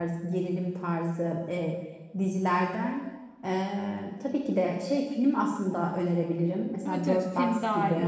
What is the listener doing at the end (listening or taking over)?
taking over